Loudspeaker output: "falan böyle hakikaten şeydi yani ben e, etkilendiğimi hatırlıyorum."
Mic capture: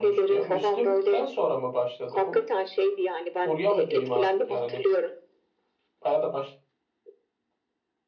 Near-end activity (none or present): present